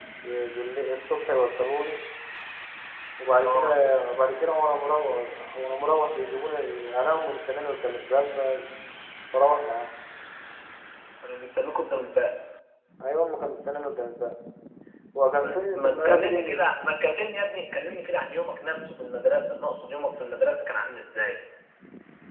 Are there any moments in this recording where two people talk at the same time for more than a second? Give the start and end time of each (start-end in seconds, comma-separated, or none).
15.4-16.6